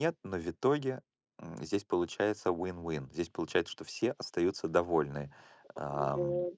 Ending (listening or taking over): listening